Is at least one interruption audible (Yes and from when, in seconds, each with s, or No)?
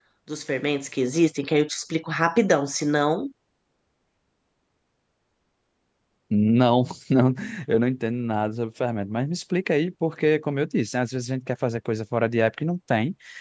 No